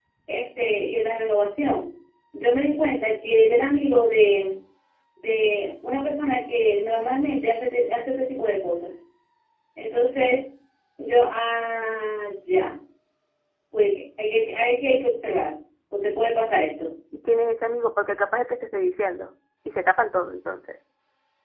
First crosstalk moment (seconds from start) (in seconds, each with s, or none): none